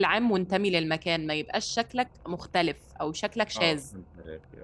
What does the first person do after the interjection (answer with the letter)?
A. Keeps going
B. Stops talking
B